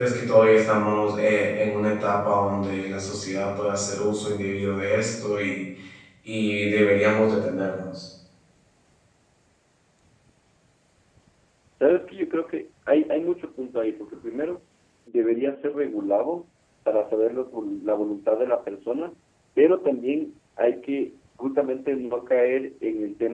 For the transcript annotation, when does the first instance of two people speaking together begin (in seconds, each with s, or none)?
none